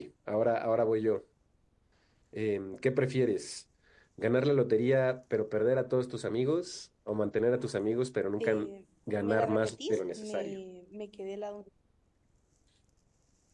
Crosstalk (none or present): present